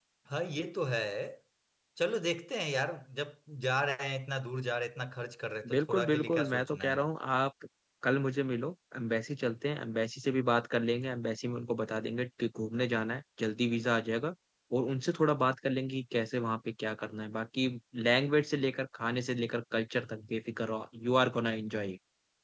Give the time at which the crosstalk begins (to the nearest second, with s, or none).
6 s